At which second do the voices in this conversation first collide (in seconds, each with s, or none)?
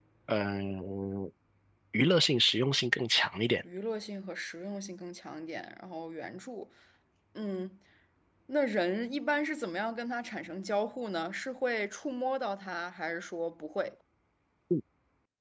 none